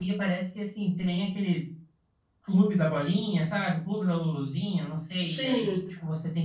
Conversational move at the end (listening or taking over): listening